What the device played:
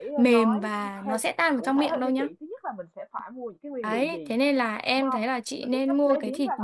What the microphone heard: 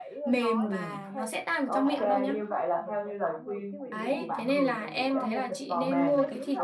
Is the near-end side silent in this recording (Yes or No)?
No